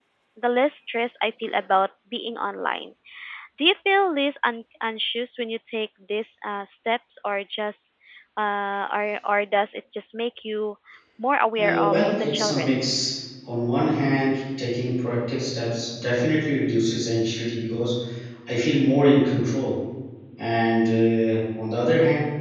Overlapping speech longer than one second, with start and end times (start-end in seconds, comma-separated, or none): 11.6-12.8